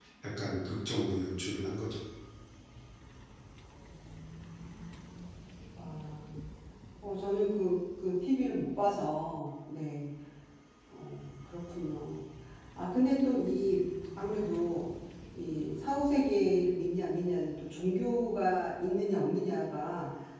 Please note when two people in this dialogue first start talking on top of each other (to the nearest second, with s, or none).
none